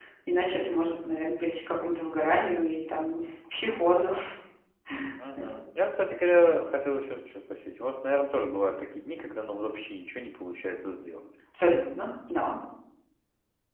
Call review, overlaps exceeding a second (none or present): none